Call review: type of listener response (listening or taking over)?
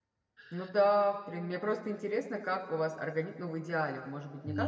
listening